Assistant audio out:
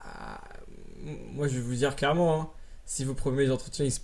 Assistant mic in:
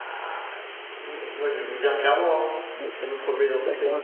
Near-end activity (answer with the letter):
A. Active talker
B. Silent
A